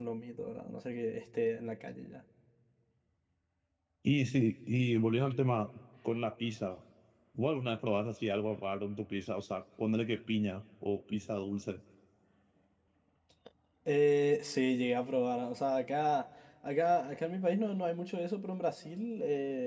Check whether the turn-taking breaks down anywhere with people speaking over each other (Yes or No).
No